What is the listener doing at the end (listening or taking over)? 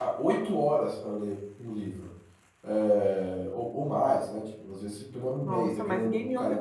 taking over